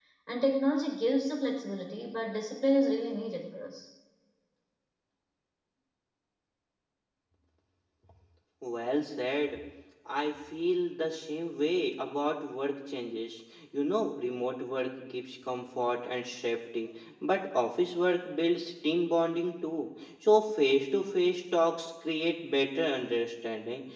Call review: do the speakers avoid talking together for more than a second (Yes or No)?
Yes